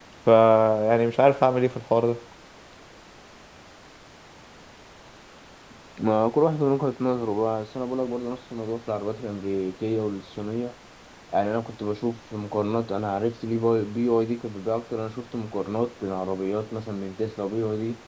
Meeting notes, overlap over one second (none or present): none